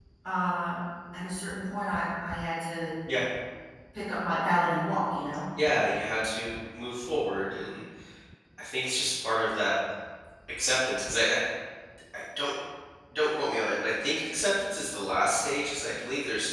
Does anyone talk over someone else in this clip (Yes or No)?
No